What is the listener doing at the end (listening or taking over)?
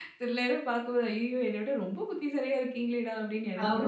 taking over